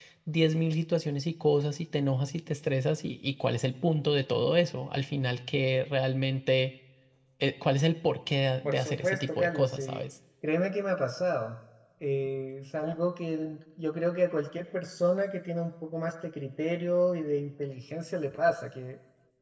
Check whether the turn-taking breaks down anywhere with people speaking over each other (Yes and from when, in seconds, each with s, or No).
Yes, from 8.6 s